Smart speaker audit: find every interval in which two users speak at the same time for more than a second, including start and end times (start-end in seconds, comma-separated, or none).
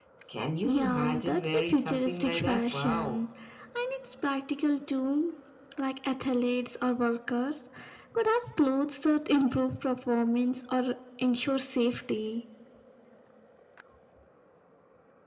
0.6-3.2